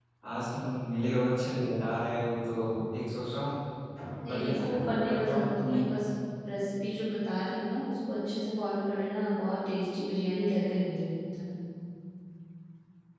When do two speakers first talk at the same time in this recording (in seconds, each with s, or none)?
4.3 s